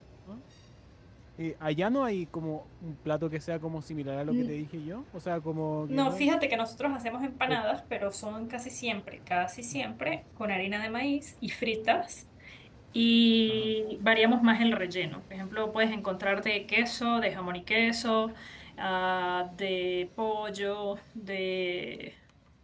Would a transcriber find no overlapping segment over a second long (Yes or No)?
Yes